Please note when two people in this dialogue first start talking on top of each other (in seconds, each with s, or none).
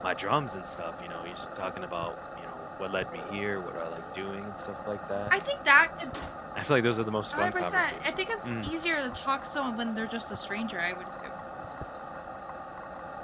7.3 s